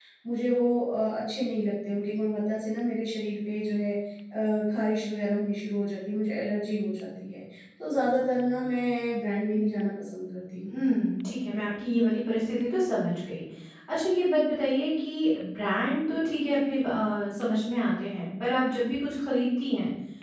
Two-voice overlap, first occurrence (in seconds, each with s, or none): none